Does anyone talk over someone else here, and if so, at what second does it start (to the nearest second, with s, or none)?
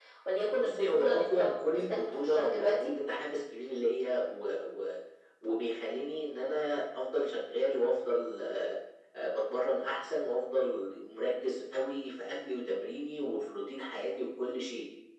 1 s